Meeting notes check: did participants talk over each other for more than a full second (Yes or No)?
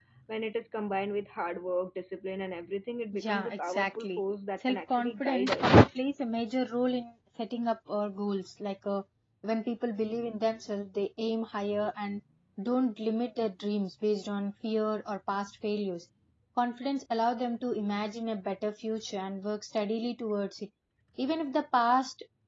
Yes